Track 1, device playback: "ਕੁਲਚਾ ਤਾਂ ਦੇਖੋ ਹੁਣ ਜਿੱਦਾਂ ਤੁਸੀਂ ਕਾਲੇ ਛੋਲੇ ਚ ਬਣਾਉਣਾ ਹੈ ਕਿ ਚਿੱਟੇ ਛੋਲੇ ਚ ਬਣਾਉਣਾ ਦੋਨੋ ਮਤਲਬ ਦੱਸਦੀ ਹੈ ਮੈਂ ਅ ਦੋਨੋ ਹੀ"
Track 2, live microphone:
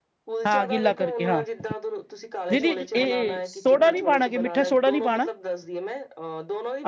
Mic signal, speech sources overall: both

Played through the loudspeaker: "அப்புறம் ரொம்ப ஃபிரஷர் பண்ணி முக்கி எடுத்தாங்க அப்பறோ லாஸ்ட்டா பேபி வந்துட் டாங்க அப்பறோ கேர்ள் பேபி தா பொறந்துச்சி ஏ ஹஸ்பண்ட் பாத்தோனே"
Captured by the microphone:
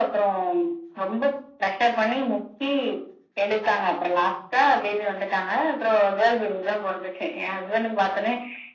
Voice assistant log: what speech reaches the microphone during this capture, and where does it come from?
echo only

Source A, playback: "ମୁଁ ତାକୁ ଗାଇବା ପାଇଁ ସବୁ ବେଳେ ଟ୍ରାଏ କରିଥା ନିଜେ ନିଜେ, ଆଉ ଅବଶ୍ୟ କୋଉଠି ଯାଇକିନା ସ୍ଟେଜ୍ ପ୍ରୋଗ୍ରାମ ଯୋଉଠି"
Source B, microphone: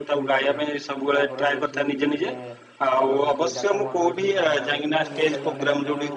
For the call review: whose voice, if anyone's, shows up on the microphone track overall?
both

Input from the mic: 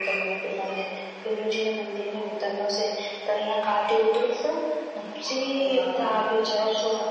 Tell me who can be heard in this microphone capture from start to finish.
both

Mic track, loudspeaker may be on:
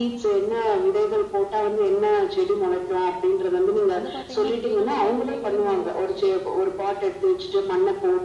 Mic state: both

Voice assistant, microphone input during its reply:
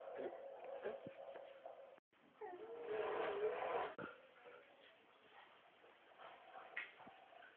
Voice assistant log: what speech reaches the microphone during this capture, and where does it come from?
neither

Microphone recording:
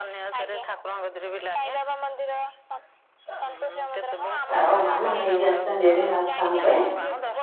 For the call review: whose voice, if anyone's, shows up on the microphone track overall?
both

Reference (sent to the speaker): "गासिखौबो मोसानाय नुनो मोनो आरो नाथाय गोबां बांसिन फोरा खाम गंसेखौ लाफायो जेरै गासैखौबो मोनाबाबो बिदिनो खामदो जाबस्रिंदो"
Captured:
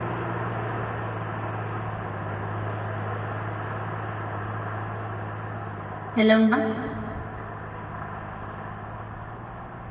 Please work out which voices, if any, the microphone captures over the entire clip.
user only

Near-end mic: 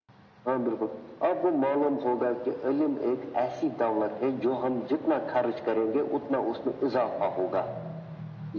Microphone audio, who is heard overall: echo only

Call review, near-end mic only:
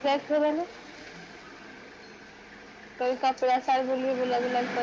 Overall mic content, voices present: echo only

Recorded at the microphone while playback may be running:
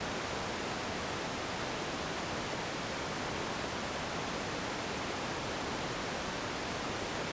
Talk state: neither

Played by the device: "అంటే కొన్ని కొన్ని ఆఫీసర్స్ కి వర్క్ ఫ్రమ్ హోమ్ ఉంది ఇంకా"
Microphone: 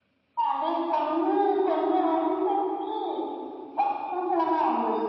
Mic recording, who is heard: echo only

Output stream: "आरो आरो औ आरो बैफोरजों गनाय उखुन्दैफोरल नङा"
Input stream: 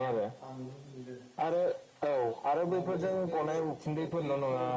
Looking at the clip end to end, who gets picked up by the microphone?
both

